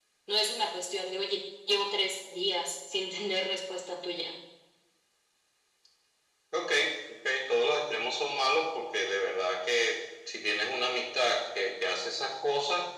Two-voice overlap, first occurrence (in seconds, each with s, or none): none